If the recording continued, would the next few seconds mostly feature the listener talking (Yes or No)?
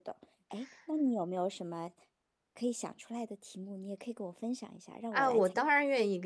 Yes